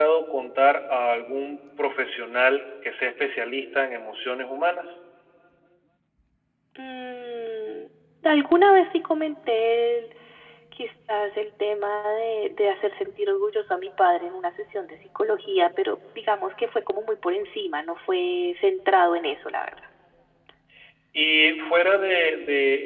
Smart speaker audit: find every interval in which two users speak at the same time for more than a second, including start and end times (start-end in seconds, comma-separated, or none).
none